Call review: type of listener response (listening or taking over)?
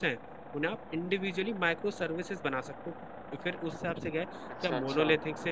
listening